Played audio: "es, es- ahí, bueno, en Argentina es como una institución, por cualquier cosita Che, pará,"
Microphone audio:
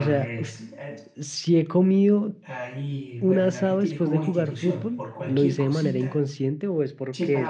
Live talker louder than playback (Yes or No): Yes